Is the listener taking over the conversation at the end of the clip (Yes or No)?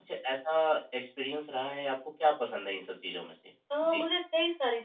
Yes